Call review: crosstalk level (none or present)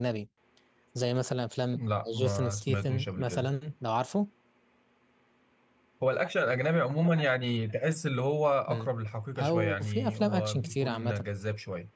present